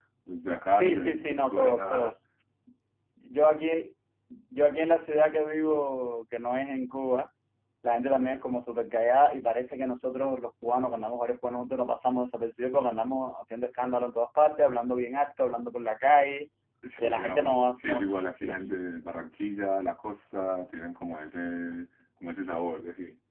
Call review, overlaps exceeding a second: present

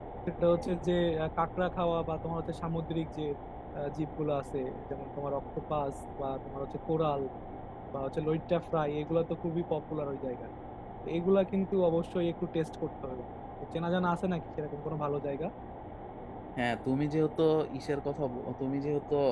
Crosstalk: none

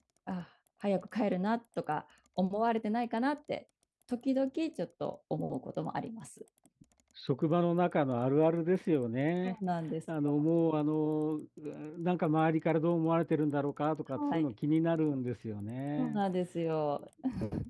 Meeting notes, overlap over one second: none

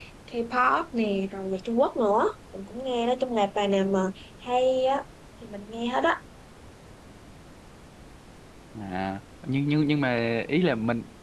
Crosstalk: none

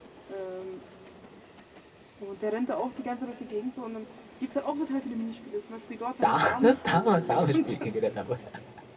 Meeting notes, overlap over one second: present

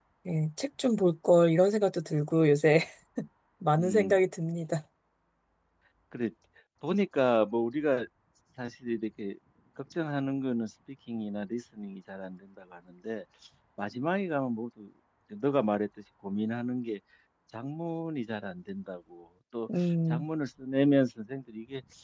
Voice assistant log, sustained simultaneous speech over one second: none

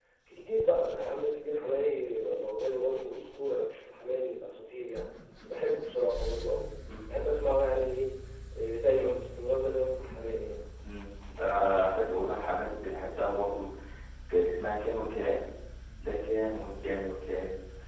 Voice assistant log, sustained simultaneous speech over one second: none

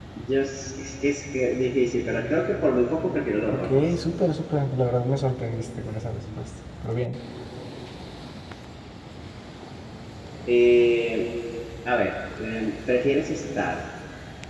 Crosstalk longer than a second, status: none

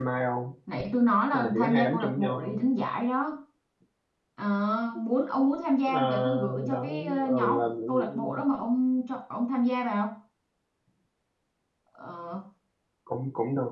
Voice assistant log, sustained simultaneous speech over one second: present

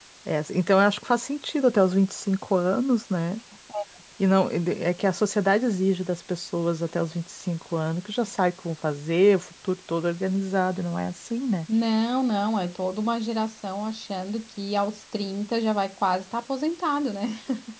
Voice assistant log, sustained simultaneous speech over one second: none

